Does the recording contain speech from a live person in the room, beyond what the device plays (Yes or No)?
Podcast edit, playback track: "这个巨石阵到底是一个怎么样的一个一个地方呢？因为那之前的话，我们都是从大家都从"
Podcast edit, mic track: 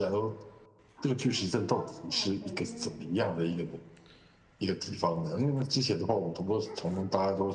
Yes